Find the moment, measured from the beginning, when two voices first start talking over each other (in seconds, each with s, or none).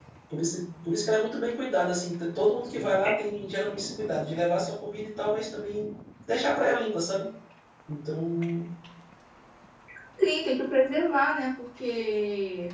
none